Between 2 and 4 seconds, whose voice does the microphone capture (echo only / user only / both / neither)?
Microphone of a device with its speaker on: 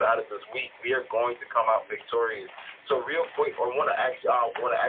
echo only